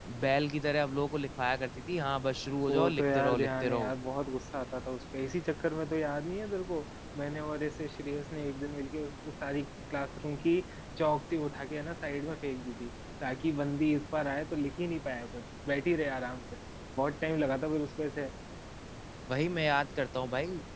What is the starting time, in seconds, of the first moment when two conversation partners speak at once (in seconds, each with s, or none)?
2.7 s